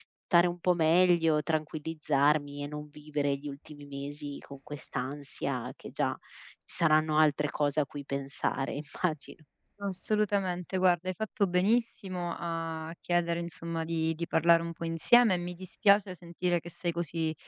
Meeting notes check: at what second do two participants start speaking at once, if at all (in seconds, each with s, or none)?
none